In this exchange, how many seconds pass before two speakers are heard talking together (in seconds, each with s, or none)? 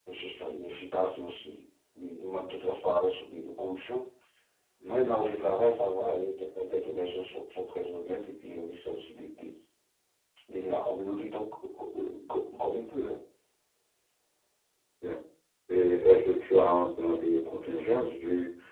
none